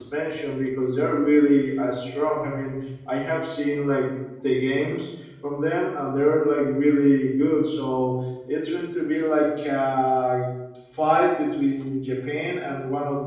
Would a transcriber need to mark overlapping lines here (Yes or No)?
No